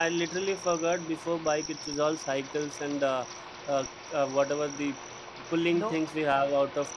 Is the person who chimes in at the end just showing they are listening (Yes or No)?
Yes